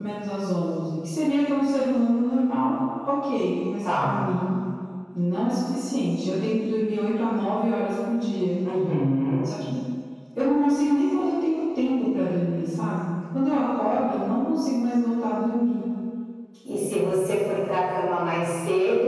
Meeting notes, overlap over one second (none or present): none